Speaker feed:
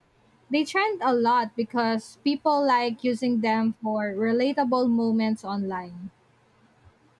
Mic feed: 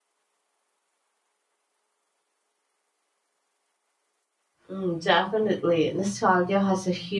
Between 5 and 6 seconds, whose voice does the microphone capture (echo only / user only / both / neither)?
user only